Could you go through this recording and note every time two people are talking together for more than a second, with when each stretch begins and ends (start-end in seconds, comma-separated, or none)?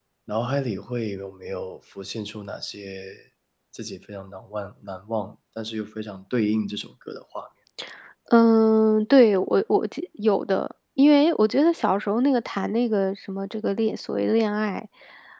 none